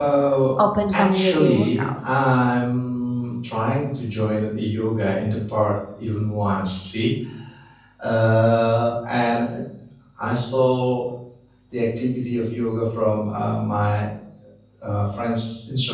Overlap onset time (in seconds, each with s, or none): 0.9 s